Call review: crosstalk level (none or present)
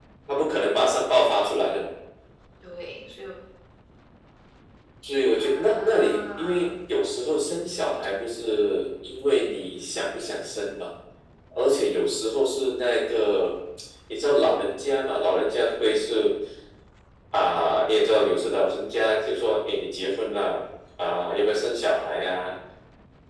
present